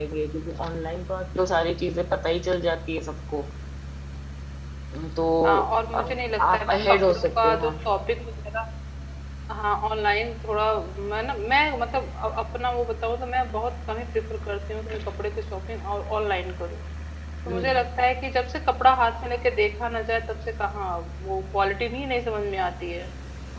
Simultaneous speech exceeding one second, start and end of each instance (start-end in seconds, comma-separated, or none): 5.9-7.7